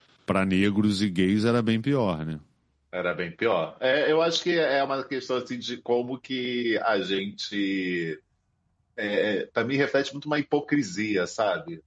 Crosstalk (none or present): none